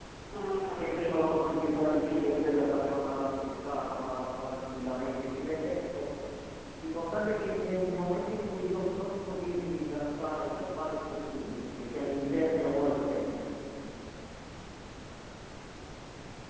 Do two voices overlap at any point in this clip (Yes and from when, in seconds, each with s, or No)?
Yes, from 0.7 s